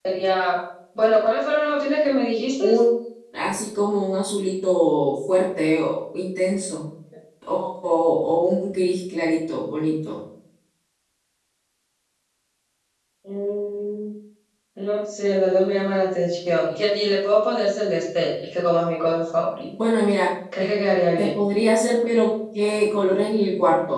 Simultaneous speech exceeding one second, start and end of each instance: none

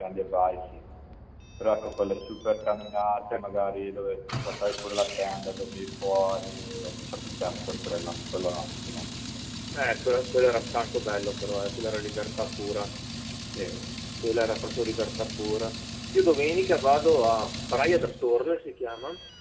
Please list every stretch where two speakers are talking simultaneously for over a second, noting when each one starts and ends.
none

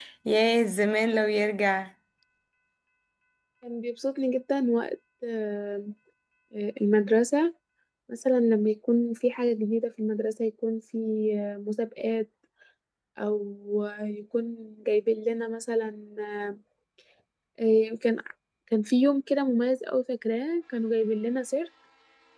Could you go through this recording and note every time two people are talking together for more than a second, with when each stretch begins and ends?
none

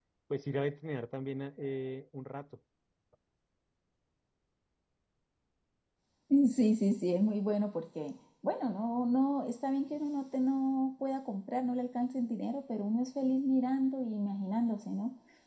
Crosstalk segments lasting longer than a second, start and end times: none

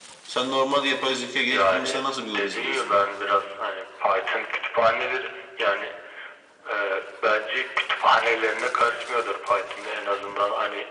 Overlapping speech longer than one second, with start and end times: 1.5-2.9

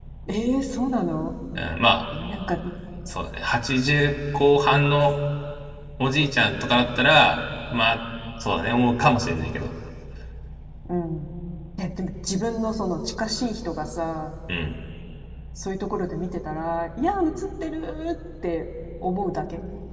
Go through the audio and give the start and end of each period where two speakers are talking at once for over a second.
none

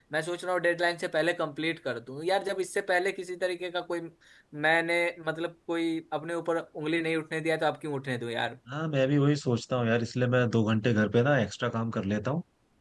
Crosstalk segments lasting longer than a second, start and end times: none

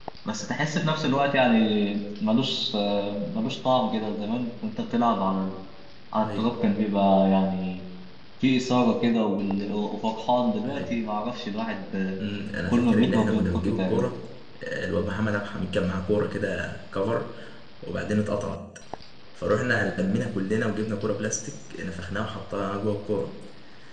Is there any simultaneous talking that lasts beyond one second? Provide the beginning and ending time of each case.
12.7-14.1

